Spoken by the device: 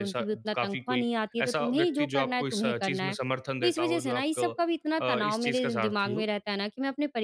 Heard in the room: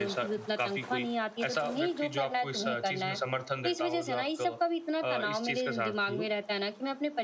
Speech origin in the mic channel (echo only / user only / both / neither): echo only